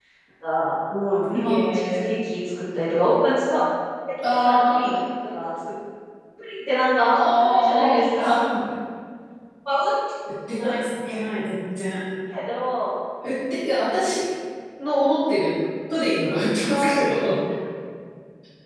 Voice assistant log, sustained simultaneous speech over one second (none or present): present